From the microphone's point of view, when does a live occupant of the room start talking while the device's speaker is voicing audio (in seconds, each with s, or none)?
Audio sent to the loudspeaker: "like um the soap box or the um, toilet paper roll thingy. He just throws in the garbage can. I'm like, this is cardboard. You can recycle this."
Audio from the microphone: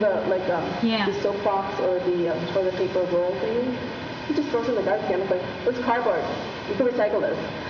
0.8 s